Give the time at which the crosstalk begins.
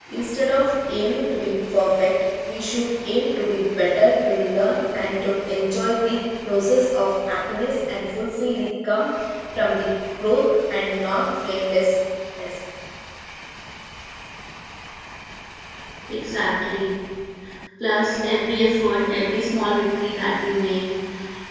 none

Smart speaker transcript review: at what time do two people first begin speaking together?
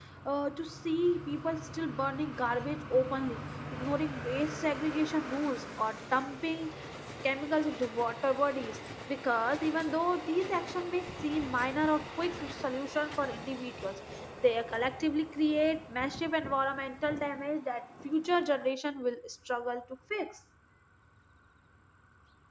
none

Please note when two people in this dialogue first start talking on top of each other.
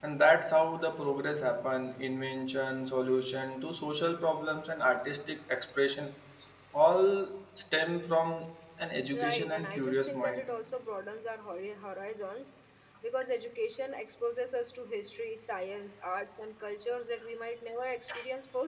9.1 s

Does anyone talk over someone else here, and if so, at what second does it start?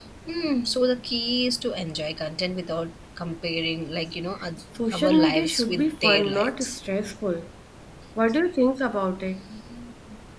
4.8 s

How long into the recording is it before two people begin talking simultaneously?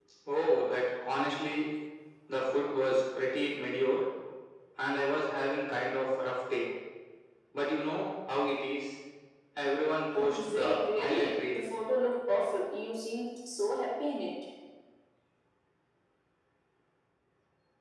10.3 s

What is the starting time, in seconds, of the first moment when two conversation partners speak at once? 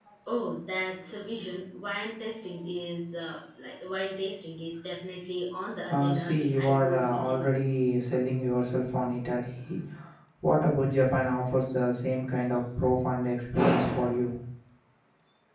5.9 s

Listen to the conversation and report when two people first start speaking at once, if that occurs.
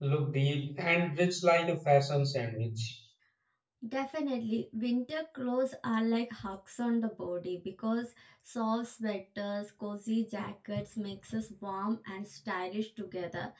none

